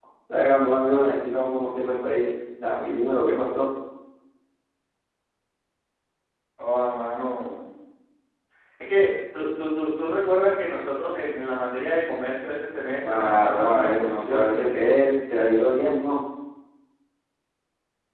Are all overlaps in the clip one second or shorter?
No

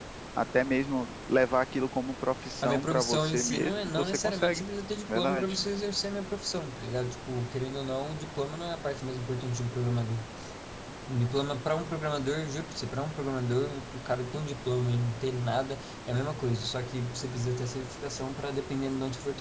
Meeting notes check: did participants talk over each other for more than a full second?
Yes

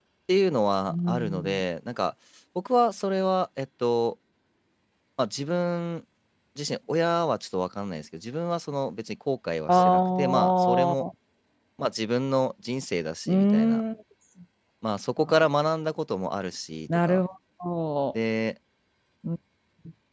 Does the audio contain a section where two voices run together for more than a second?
Yes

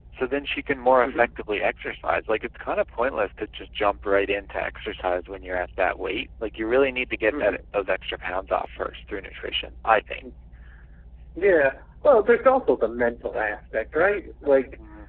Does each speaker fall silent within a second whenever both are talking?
Yes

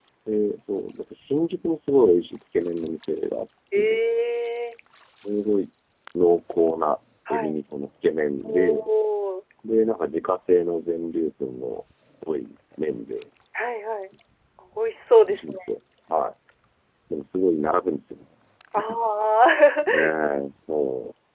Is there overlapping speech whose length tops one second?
No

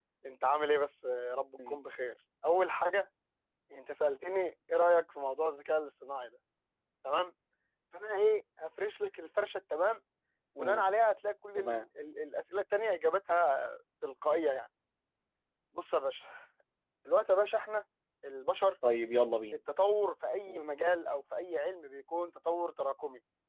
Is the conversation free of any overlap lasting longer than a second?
Yes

